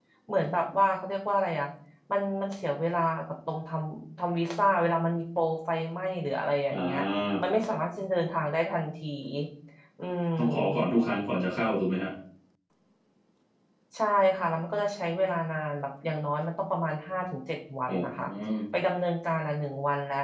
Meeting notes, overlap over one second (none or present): none